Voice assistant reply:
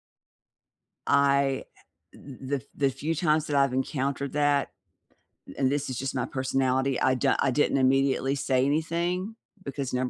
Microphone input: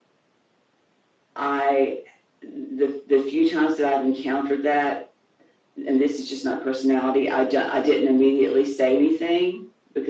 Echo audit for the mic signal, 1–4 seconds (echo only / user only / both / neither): echo only